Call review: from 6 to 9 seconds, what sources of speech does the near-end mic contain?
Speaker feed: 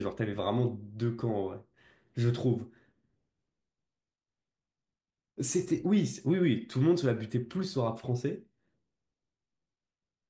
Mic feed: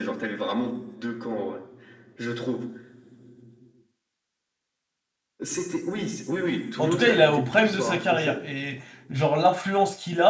both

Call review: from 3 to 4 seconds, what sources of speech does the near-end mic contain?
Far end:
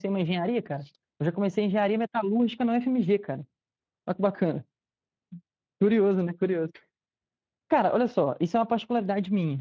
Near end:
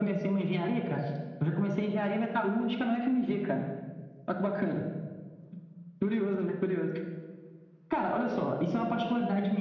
echo only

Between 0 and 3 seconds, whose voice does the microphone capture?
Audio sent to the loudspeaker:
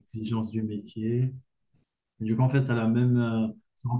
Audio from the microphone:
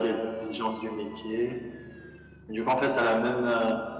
echo only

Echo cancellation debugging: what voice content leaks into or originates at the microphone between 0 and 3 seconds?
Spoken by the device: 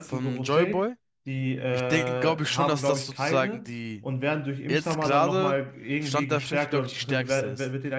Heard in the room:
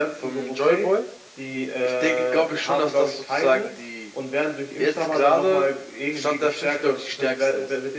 echo only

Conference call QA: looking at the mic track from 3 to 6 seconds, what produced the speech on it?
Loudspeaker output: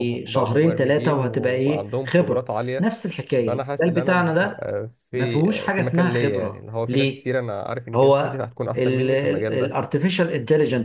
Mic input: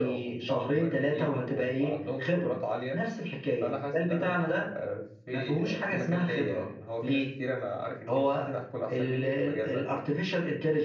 echo only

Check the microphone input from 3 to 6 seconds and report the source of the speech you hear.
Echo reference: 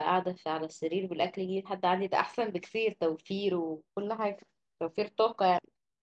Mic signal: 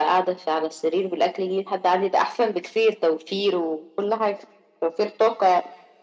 echo only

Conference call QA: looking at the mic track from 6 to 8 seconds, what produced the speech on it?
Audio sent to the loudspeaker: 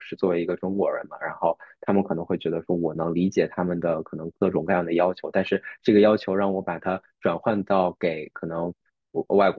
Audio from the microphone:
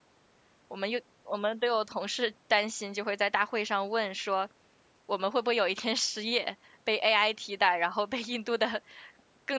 user only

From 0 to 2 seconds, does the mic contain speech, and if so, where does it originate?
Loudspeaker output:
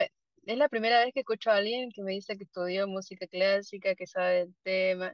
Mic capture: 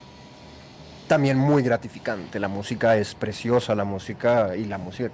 user only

